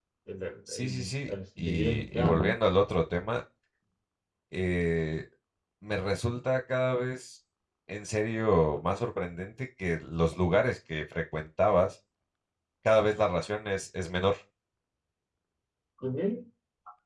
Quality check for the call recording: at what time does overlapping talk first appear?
0.7 s

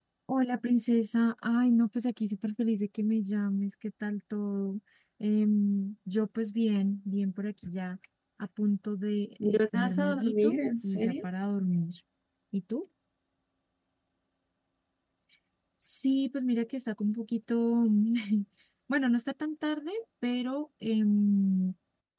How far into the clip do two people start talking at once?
9.4 s

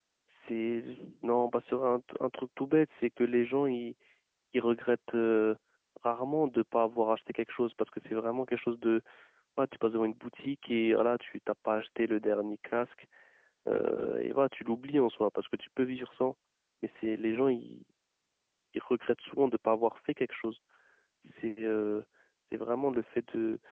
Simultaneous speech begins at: none

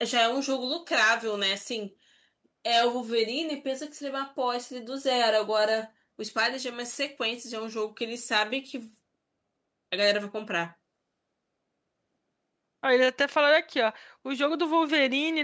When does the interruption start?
none

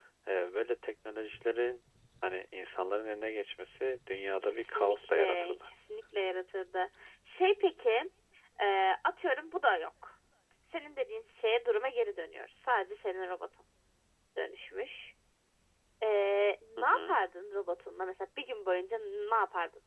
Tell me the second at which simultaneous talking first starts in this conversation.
4.4 s

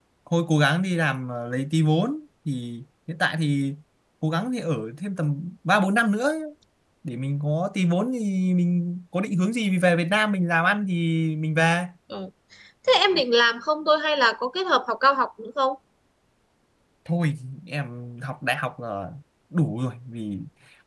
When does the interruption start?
none

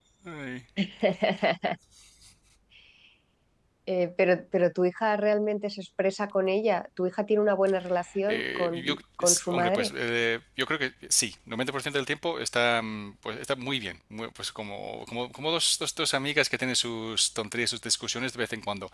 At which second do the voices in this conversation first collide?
8.3 s

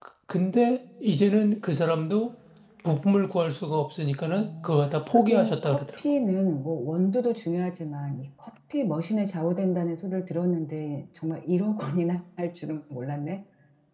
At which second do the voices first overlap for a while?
4.2 s

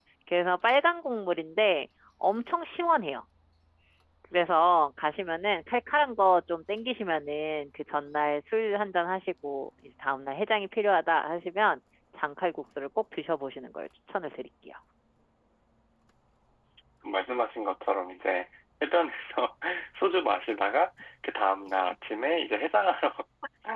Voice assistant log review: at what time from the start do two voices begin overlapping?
none

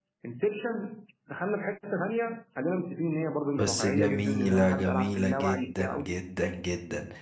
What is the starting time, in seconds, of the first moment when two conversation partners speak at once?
3.5 s

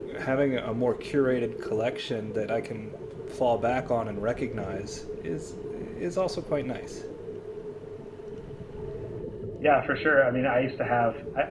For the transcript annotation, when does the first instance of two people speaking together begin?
none

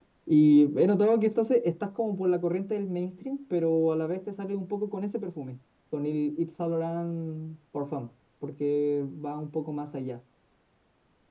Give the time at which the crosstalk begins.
none

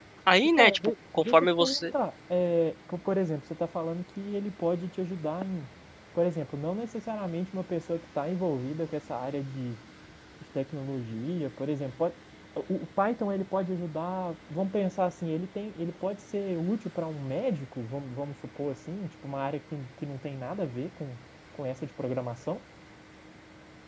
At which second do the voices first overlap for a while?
0.6 s

